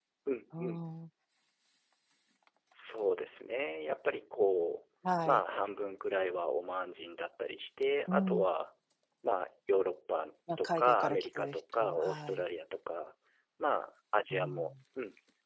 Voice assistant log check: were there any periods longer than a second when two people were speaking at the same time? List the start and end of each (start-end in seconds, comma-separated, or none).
10.6-12.4